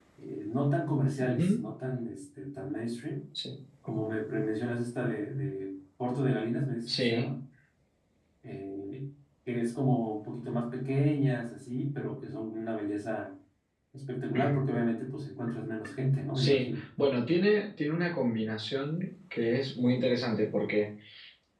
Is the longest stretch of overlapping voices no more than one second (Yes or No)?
Yes